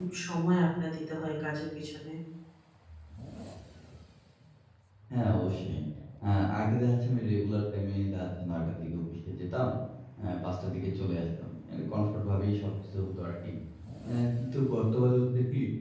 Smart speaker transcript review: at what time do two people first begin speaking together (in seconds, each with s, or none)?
none